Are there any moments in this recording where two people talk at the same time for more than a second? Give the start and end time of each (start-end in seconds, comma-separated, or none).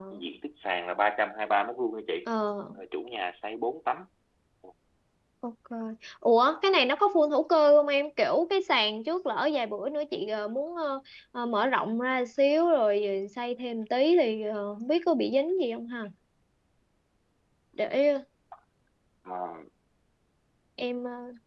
none